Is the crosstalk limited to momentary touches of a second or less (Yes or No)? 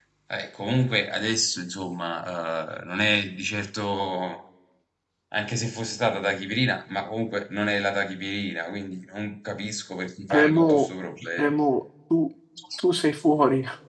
Yes